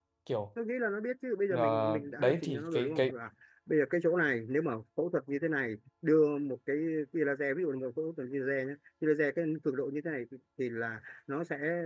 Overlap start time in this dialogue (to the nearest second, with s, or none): 2 s